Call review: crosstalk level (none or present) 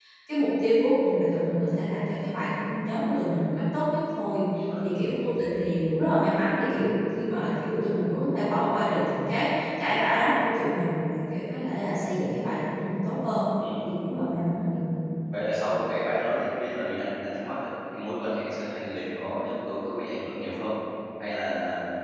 none